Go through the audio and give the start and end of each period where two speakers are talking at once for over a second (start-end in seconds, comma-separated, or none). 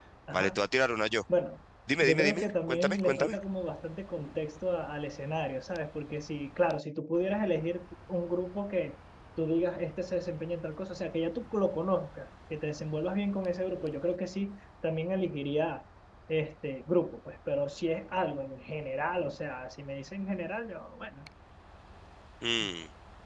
2.0-3.4